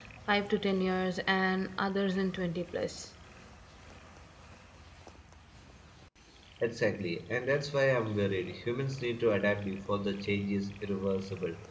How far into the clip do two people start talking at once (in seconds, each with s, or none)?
none